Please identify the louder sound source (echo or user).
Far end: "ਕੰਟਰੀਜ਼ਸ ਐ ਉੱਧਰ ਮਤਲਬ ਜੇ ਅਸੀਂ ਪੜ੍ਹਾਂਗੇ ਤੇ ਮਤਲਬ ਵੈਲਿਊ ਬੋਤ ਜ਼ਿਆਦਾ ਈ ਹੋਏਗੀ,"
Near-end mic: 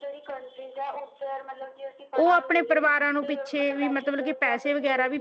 user